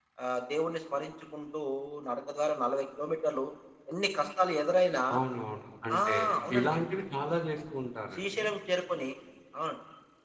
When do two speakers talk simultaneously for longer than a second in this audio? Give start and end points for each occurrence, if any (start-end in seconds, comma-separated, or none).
none